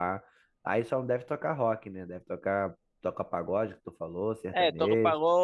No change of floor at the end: No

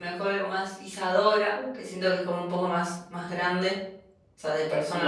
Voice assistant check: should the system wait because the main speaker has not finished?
No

